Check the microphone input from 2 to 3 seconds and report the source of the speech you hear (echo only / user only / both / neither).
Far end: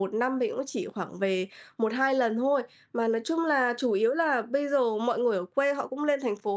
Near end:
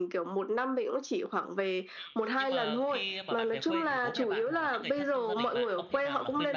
both